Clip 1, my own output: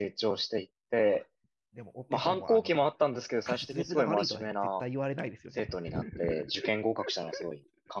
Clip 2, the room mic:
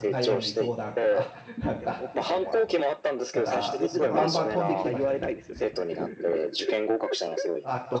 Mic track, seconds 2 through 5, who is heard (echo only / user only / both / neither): both